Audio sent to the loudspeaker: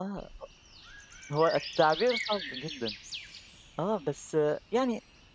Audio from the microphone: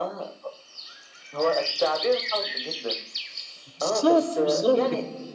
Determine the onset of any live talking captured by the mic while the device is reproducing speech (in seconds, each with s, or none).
3.8 s